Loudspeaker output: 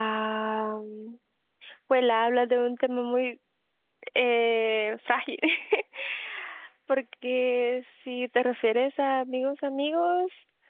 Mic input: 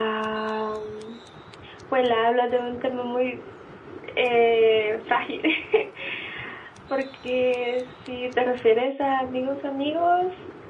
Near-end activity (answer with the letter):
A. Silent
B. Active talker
A